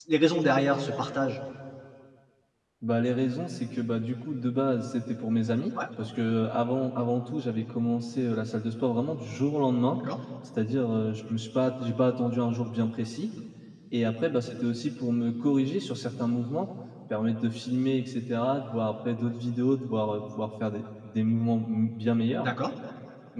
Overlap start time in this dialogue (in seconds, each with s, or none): none